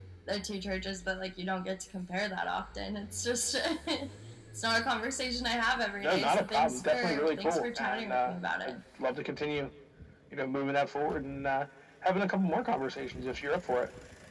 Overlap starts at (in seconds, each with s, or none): 6.0 s